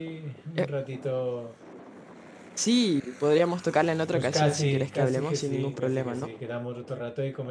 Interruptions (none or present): present